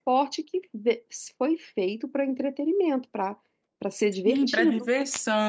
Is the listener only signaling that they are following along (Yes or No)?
No